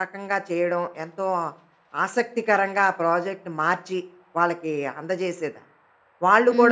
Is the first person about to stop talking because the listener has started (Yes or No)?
Yes